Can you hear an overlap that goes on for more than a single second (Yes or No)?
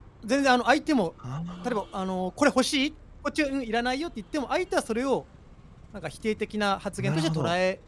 No